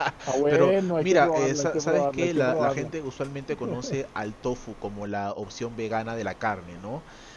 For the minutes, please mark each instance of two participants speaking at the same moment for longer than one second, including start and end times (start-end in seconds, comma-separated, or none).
0.5-2.9